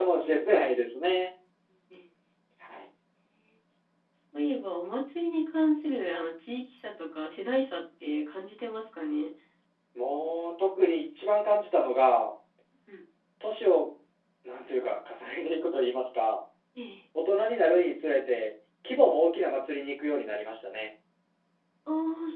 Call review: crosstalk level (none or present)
none